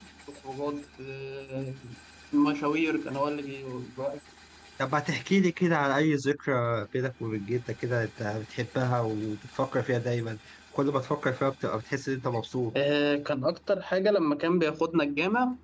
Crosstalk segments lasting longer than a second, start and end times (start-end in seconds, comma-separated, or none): none